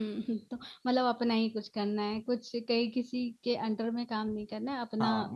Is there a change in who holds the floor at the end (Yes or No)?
Yes